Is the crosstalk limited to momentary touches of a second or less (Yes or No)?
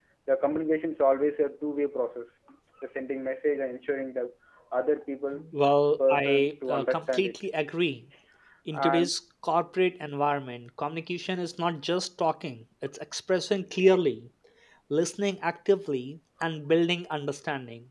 No